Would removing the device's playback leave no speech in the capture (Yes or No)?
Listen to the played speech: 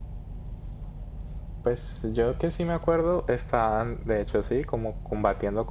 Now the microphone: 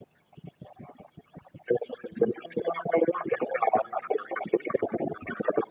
Yes